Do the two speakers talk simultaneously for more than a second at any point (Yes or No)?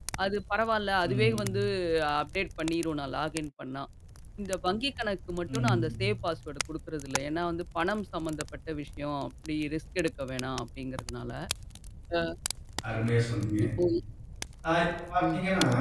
No